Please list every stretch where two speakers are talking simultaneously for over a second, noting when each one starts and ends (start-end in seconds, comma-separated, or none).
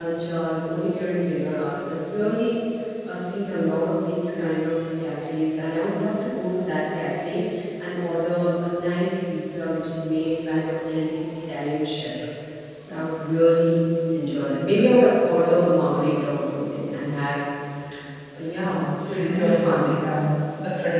18.4-19.9